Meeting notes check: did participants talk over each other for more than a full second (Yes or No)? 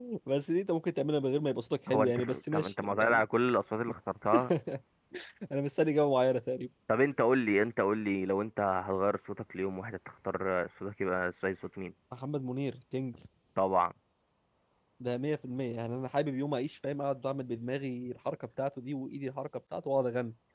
Yes